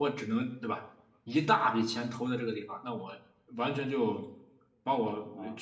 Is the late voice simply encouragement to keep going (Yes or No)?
Yes